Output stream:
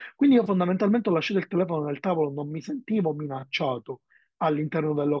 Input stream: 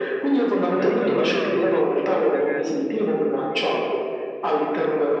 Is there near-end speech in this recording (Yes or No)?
Yes